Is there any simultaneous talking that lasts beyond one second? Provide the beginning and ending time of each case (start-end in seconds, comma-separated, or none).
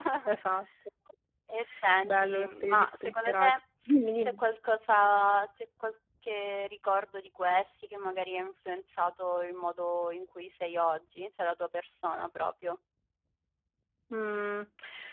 2.0-3.5